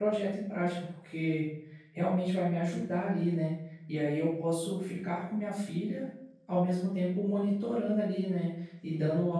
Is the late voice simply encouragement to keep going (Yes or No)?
Yes